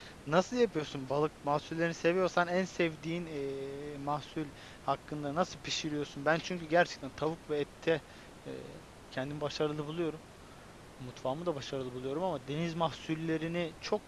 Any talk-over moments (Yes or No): No